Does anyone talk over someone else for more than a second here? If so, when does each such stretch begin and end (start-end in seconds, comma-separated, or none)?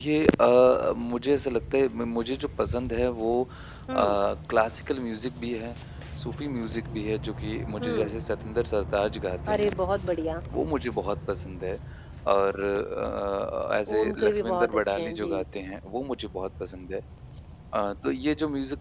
13.9-15.4